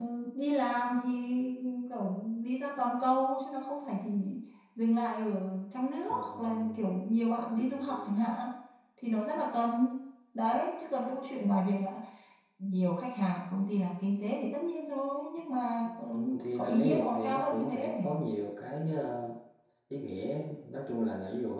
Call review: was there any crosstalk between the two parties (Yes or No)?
Yes